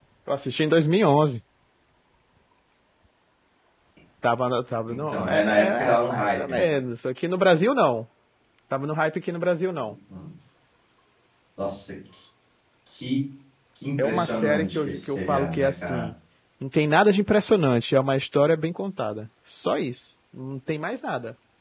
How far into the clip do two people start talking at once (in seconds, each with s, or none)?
4.9 s